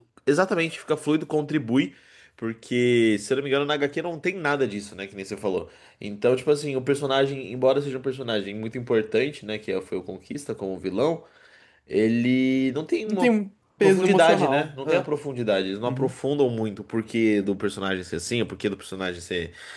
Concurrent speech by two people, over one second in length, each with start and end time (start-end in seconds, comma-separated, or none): 13.8-15.1